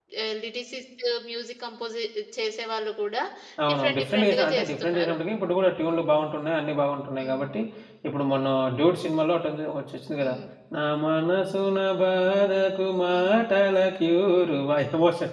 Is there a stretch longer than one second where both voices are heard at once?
Yes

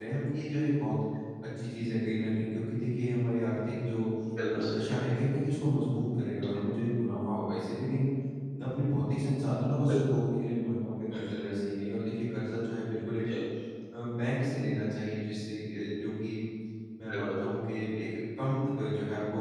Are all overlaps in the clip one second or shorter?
Yes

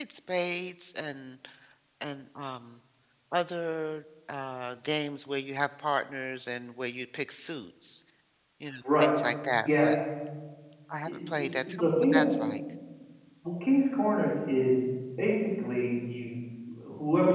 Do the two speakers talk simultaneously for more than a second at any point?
Yes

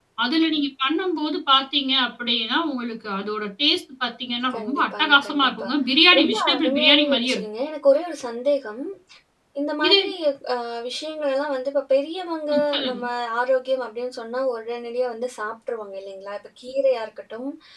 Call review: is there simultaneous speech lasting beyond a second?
Yes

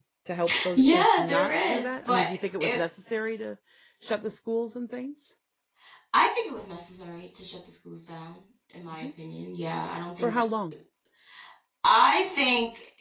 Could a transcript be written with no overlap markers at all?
No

